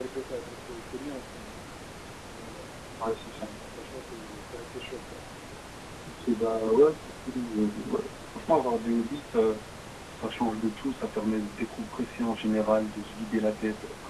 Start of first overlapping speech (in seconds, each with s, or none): none